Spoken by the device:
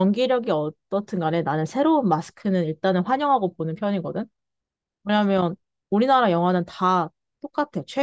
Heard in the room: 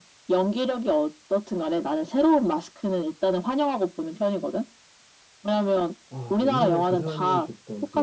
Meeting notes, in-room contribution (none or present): present